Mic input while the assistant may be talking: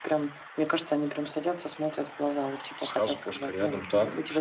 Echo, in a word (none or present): present